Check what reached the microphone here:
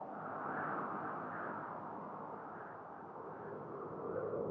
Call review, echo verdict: none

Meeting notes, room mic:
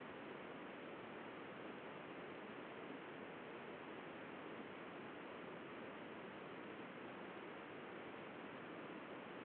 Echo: none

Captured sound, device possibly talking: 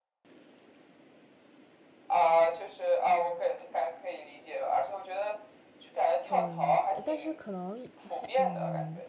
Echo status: present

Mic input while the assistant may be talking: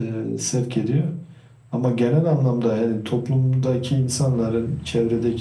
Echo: present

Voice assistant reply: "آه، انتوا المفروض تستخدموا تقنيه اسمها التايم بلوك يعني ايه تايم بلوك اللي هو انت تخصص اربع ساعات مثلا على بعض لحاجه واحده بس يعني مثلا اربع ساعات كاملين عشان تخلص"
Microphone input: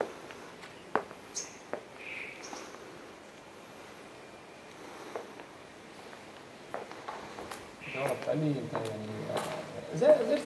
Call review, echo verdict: none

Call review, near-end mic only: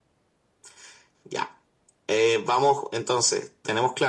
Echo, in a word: present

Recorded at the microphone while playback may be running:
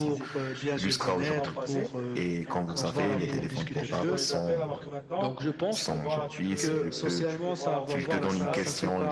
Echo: present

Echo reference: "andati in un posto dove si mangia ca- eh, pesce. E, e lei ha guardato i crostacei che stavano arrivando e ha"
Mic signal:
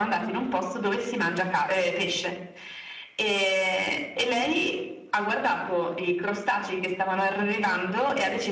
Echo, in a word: present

